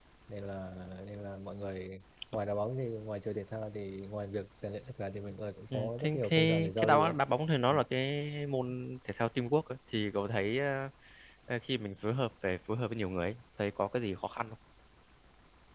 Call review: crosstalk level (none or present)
present